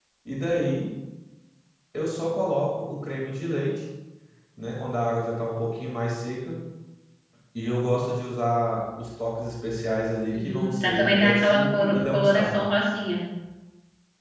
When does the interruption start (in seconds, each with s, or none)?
10.3 s